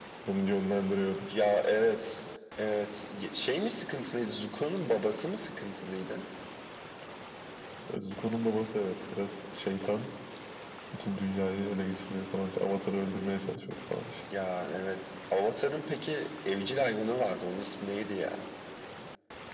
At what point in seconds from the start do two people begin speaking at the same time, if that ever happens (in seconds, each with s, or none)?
none